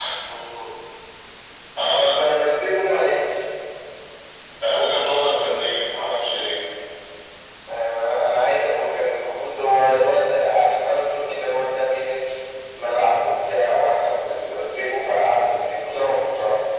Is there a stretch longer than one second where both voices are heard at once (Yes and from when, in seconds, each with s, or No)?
No